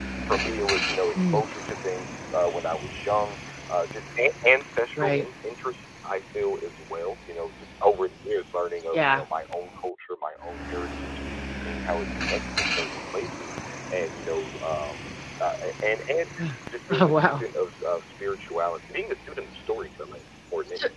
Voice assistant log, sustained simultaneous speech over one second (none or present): none